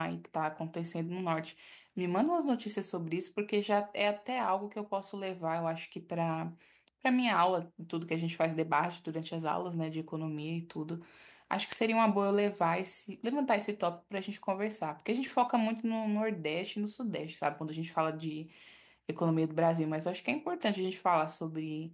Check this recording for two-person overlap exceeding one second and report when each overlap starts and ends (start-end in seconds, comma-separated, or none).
none